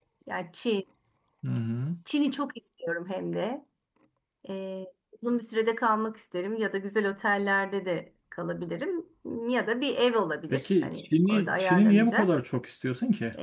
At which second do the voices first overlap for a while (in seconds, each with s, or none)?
10.5 s